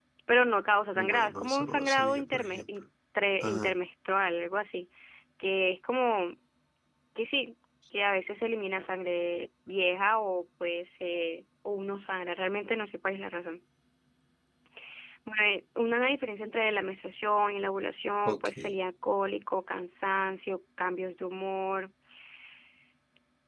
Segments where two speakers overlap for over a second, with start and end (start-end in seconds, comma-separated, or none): 1.0-2.6